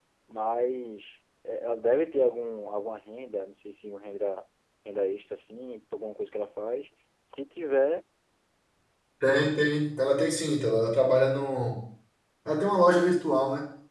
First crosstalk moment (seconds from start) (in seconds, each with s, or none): none